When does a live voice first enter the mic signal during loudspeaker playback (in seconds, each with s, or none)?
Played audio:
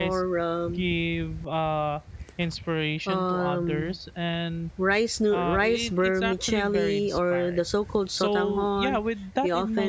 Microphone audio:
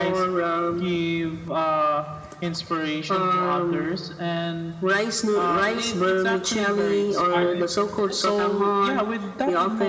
7.3 s